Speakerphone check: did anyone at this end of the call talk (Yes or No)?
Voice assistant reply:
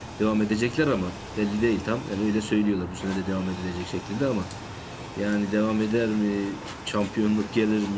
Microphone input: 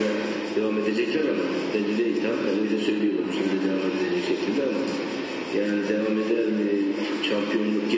No